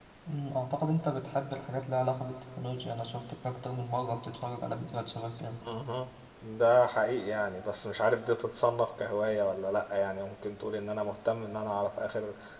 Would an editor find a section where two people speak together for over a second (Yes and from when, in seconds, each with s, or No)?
No